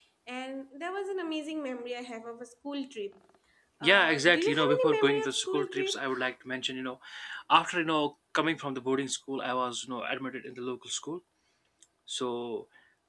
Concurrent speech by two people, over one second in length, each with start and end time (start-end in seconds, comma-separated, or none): 3.8-6.0